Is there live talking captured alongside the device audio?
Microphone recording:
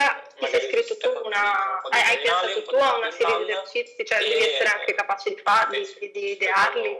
No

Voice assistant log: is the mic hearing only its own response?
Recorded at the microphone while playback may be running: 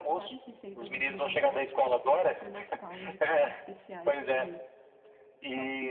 No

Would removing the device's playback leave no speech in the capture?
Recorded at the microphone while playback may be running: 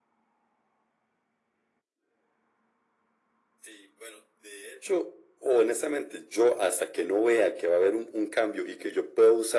Yes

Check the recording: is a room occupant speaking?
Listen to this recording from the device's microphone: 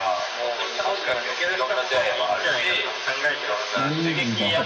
Yes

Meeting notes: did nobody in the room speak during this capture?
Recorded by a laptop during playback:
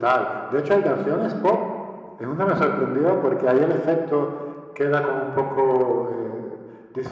Yes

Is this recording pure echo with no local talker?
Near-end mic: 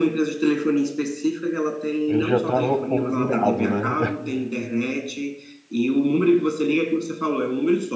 No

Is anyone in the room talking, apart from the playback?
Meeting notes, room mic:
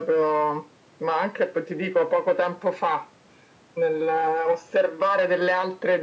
No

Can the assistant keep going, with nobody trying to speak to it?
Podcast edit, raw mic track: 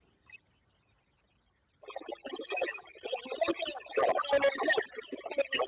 Yes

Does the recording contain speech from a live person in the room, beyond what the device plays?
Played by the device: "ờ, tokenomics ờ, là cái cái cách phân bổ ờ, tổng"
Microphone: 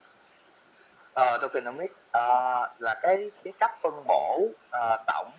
No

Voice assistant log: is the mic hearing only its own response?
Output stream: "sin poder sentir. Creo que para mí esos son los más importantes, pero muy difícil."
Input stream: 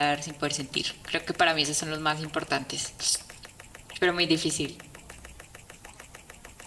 Yes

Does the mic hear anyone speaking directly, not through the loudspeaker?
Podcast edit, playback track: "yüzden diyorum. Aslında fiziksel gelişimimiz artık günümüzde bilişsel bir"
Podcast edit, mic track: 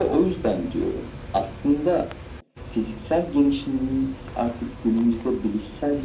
No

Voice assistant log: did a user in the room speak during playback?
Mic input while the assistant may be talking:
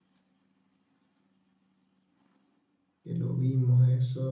Yes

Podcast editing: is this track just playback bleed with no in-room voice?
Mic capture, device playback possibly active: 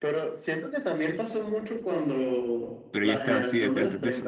No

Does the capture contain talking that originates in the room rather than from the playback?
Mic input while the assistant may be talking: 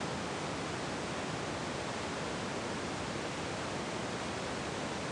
No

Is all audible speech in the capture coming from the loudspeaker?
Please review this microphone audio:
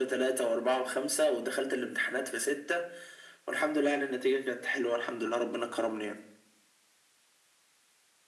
Yes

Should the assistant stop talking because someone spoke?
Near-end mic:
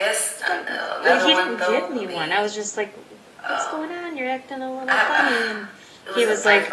Yes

